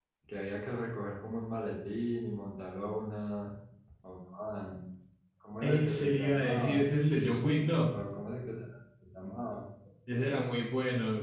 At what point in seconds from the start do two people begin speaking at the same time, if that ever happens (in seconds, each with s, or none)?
5.6 s